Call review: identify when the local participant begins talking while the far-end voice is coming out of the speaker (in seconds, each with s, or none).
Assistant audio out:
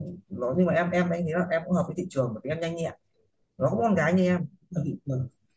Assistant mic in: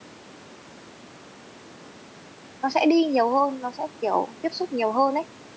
2.6 s